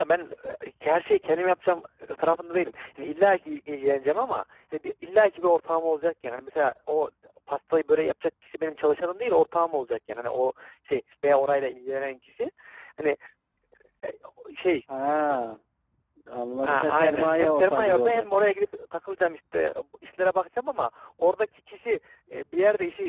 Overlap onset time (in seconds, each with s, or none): 16.6 s